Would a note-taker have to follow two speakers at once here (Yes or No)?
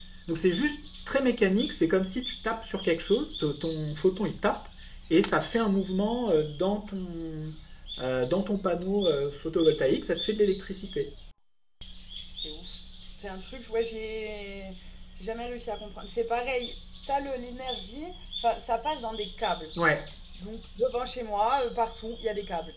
No